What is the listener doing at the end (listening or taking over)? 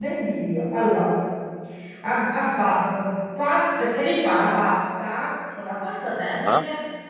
listening